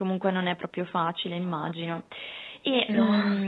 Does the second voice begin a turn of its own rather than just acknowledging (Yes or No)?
No